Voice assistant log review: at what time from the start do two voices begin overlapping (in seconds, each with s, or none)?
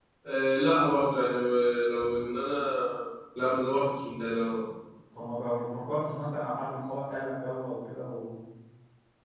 none